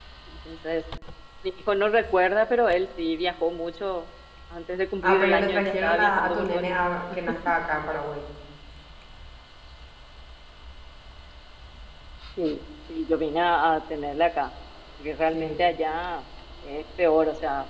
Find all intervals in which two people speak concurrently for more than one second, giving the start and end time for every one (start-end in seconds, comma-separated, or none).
5.0-6.7